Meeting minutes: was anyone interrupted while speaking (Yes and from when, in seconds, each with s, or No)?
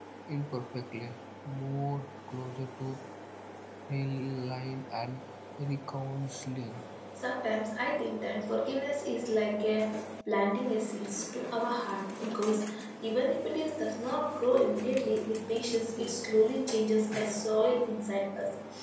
No